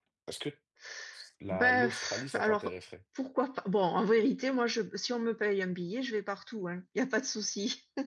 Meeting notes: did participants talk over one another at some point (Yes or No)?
Yes